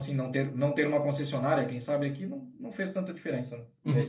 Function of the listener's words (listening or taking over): taking over